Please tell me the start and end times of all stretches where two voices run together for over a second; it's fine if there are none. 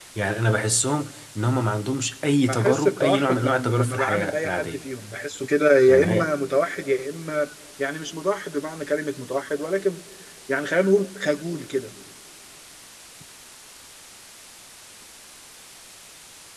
2.5-4.8

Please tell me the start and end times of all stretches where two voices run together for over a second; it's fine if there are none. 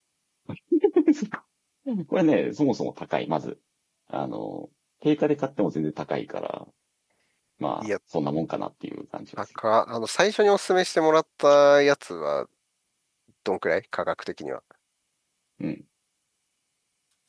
none

